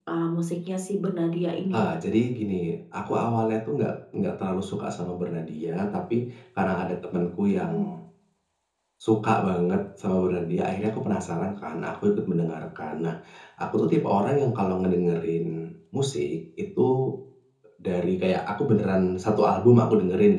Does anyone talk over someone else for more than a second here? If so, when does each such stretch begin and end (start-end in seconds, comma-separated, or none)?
none